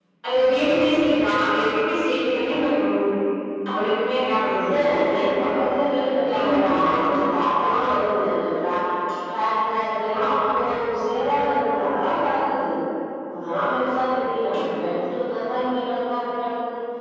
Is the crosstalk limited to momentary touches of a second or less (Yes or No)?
Yes